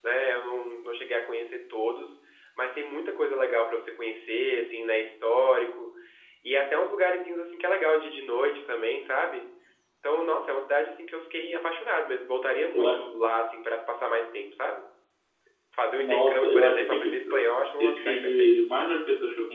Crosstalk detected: Yes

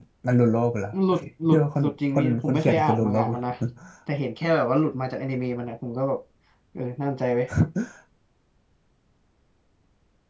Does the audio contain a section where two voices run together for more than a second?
Yes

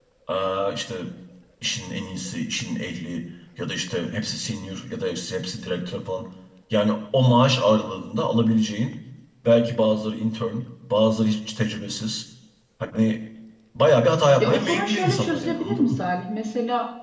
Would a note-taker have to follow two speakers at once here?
Yes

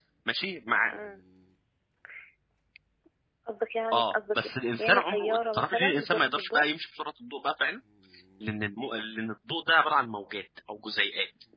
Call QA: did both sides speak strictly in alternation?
No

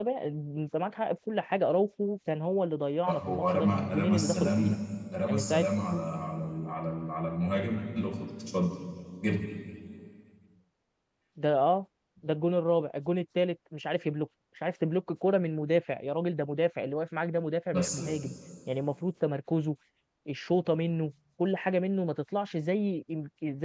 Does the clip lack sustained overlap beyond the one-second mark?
No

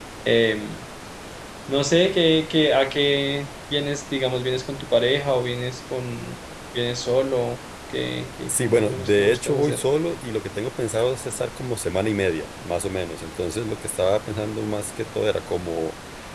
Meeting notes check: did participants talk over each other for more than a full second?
Yes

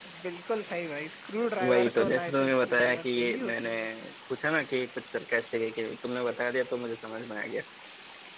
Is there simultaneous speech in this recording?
Yes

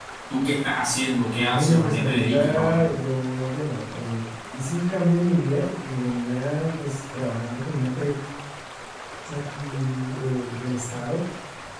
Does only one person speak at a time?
No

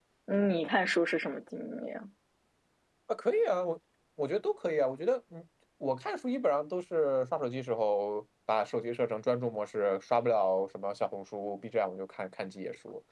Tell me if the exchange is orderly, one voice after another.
Yes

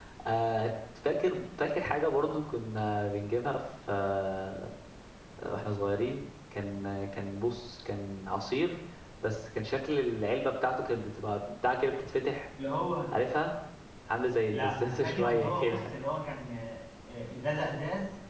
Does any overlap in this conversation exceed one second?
Yes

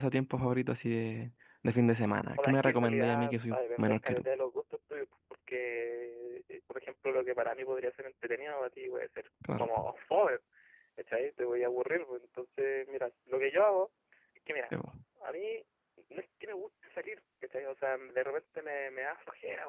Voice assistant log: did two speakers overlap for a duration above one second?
Yes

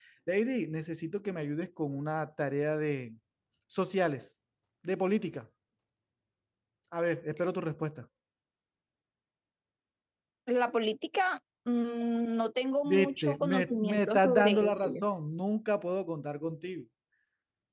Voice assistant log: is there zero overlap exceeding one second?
No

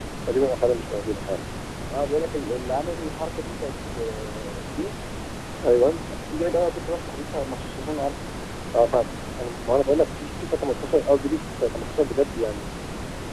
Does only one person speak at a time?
Yes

